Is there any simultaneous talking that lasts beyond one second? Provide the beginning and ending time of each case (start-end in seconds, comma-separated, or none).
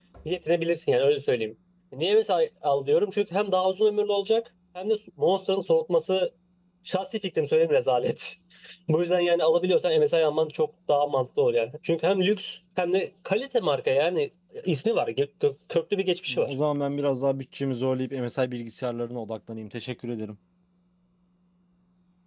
none